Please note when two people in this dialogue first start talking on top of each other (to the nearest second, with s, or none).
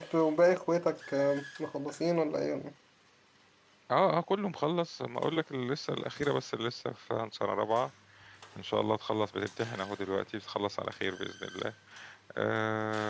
none